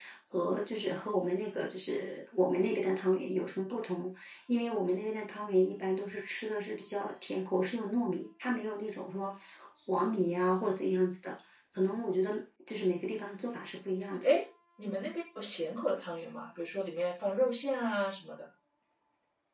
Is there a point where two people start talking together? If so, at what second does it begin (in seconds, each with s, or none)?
none